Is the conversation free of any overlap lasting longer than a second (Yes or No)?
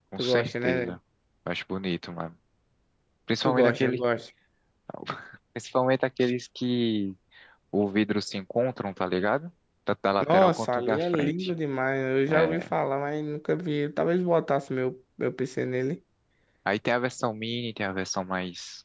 No